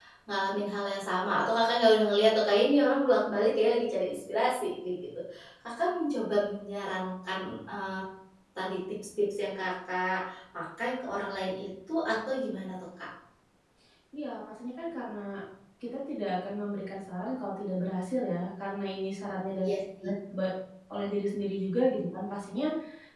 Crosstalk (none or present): none